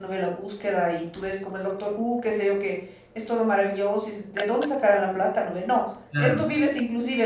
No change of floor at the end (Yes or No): Yes